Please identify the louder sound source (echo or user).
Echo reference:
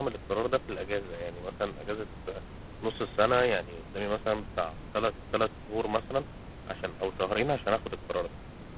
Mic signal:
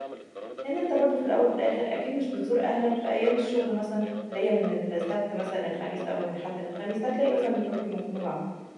user